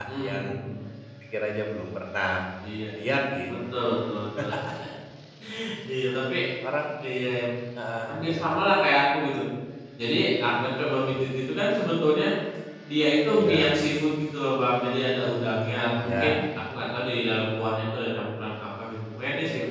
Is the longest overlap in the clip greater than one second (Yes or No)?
No